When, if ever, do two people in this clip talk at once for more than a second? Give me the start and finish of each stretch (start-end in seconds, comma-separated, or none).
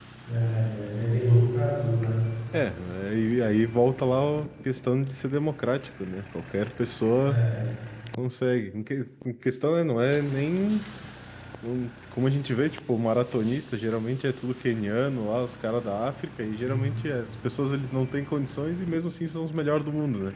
none